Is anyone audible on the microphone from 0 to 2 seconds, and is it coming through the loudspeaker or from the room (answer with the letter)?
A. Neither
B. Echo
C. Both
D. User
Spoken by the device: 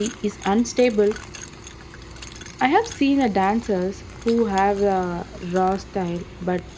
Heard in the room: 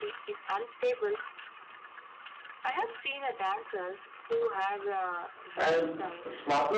B